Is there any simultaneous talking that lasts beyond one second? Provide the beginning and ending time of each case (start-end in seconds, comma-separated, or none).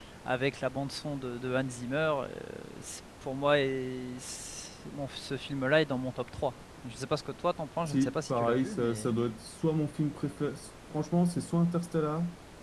7.9-9.1